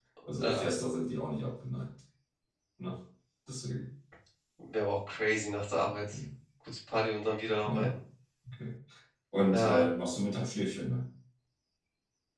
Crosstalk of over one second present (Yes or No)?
No